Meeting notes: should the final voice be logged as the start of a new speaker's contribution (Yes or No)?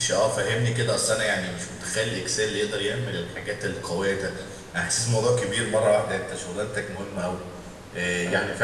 No